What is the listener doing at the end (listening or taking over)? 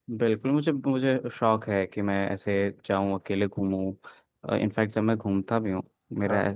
listening